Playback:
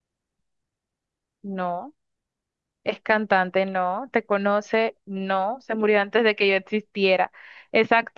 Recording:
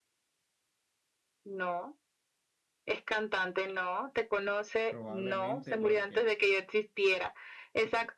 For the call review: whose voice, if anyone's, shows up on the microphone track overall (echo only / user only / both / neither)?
both